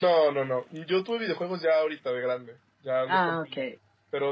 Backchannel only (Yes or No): Yes